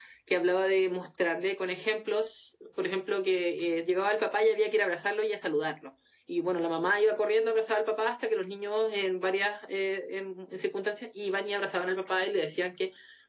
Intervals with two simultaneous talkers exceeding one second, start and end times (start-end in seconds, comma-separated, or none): none